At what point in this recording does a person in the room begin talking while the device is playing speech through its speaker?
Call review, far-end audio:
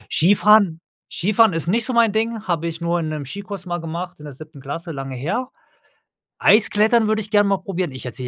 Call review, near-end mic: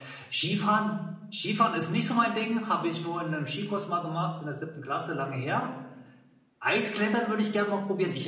none

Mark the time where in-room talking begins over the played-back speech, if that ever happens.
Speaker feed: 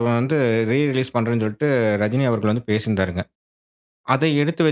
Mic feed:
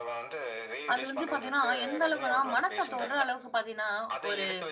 0.9 s

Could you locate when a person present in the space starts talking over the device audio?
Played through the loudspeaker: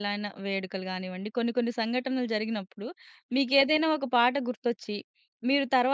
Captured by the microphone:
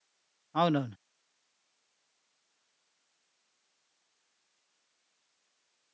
0.6 s

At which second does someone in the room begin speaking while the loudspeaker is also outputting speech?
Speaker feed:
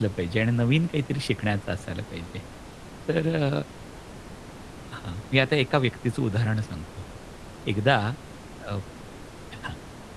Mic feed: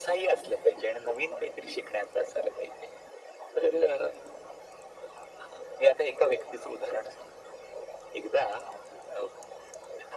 none

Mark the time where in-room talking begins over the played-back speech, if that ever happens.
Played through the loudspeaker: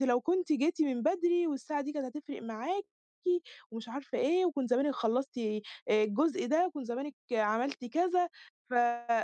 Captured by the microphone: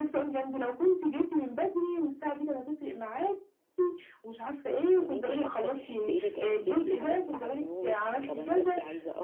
5.0 s

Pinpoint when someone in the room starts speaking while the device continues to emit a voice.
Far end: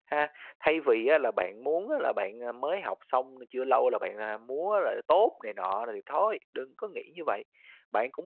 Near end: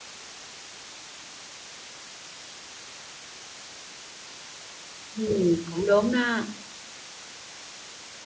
5.1 s

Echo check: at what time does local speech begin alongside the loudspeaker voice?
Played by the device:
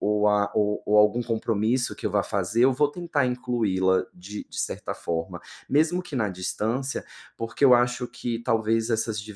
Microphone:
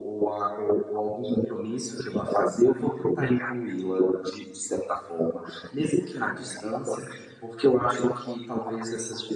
none

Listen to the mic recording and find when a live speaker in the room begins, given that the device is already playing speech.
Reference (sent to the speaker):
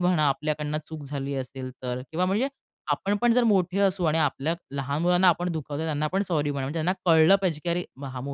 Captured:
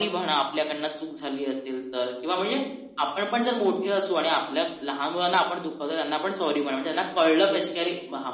none

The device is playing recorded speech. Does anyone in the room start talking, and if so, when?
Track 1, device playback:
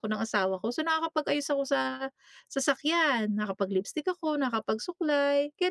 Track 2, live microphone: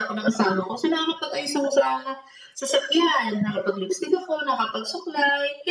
none

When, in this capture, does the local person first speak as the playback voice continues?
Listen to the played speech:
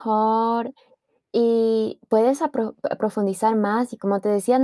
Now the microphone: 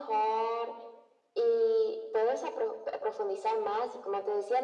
none

